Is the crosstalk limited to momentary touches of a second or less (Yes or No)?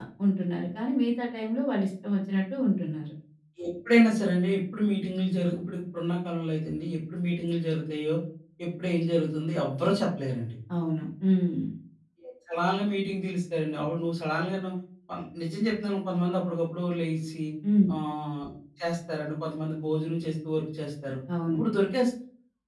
Yes